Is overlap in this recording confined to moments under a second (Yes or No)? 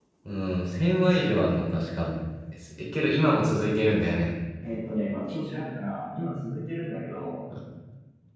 Yes